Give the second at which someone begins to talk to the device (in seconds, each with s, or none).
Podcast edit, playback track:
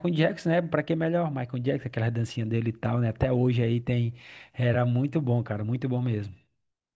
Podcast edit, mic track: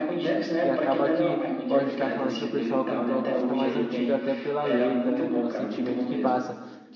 0.6 s